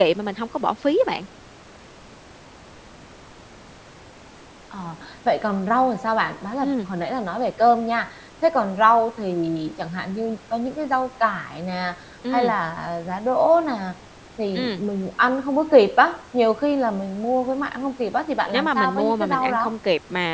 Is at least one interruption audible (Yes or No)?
Yes